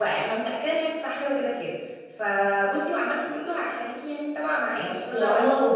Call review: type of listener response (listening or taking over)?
taking over